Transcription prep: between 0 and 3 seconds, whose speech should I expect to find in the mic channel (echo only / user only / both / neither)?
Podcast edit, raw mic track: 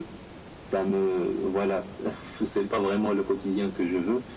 echo only